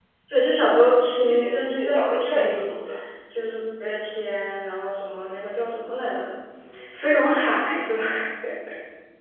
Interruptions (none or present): present